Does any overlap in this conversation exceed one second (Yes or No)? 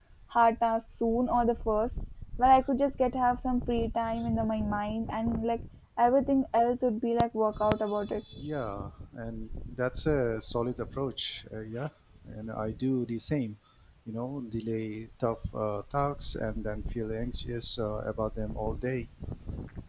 No